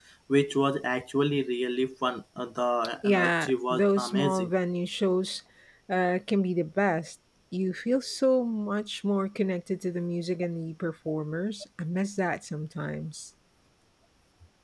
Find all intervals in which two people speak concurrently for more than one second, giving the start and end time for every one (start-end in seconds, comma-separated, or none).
3.0-4.5